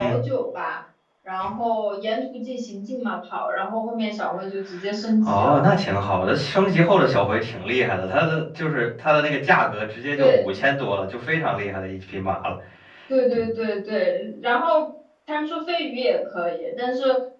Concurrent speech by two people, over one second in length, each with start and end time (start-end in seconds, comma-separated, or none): none